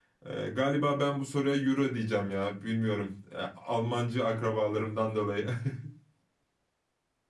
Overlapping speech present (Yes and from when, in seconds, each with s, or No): No